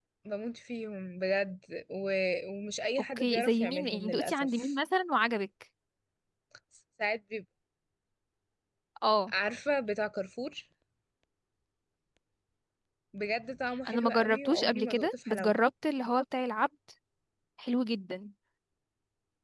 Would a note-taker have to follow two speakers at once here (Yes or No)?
Yes